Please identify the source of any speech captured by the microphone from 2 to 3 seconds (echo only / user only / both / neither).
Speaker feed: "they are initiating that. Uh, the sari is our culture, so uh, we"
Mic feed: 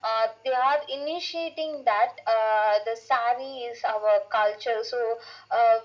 echo only